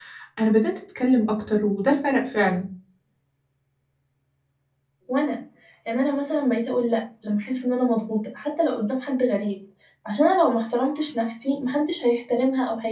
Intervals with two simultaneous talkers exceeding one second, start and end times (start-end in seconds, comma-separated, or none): none